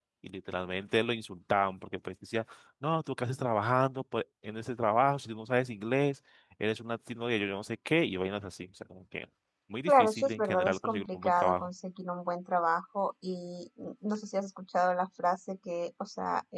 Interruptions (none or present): present